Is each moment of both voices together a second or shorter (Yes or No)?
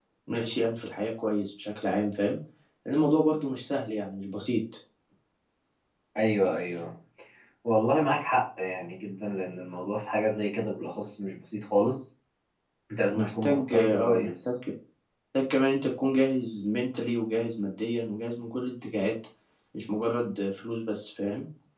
No